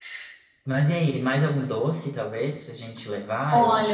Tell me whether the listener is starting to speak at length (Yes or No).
Yes